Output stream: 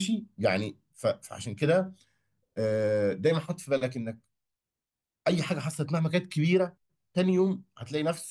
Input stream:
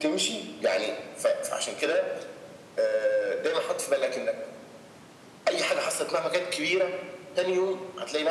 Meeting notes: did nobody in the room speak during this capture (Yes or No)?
Yes